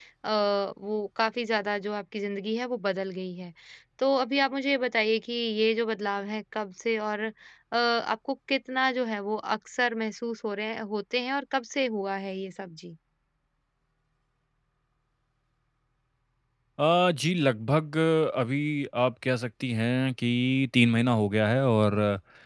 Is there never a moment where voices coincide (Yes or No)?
Yes